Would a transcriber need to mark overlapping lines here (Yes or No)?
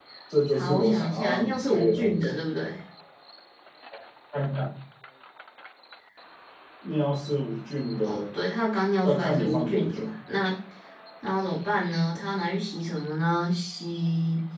Yes